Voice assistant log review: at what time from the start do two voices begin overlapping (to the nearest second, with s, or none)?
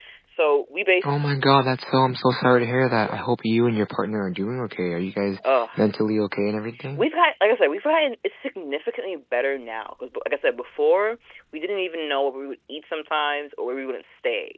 none